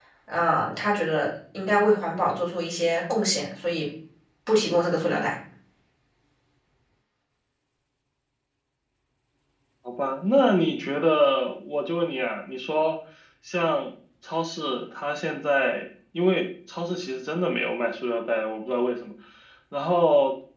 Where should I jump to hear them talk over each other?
none

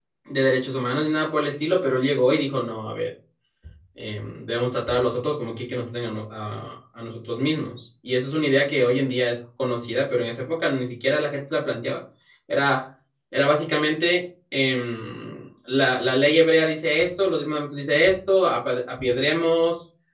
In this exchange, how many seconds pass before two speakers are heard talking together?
none

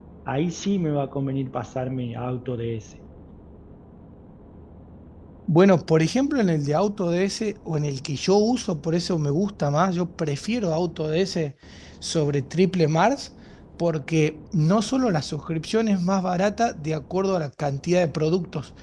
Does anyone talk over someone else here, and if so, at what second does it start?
none

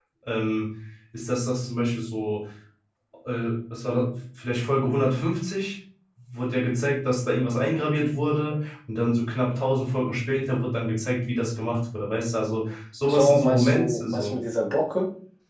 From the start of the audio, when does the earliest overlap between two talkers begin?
13 s

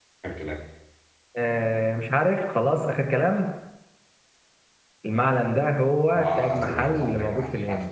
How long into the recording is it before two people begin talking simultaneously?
6 s

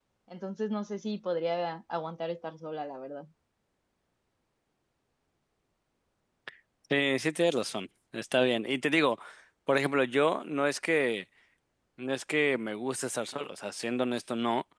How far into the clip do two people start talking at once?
none

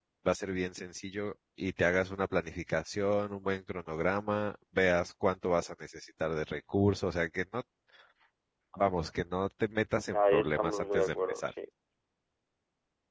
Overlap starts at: 10 s

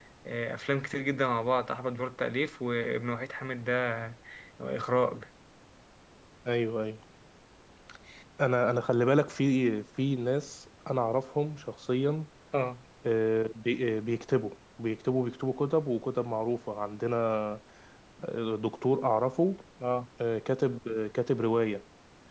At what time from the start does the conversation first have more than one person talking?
none

